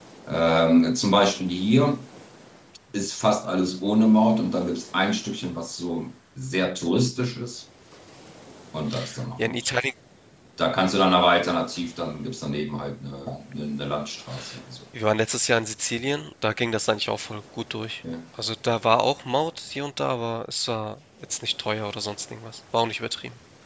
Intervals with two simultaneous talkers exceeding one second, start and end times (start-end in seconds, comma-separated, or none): none